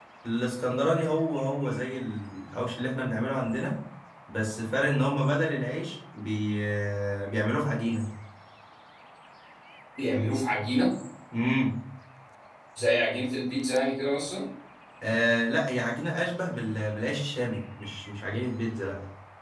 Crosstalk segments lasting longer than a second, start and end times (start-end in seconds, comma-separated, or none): none